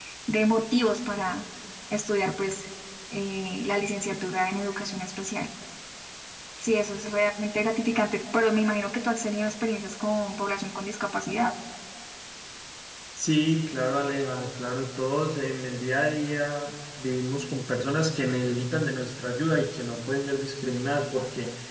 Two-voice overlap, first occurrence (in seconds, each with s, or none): none